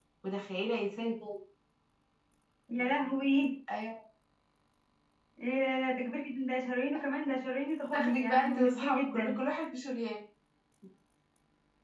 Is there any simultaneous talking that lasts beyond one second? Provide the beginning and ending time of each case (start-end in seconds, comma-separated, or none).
7.9-9.4